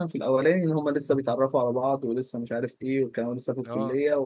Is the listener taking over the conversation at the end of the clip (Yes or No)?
No